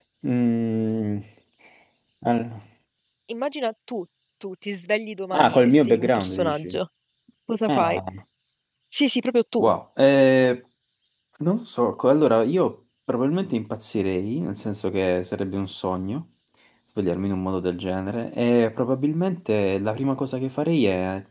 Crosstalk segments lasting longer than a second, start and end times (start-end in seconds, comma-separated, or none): 5.3-6.8